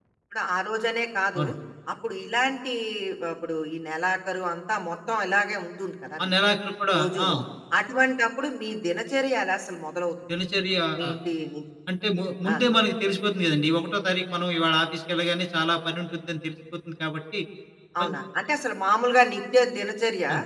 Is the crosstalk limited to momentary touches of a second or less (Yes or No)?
Yes